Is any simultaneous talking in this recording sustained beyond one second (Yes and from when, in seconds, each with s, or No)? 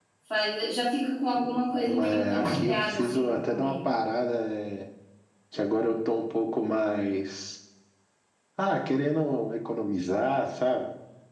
Yes, from 1.8 s